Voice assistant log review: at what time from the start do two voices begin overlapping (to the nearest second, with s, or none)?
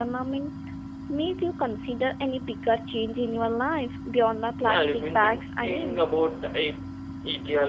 5 s